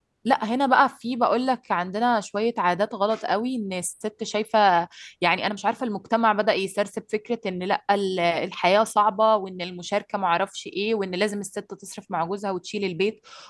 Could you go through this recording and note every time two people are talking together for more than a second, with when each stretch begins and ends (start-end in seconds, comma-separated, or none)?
none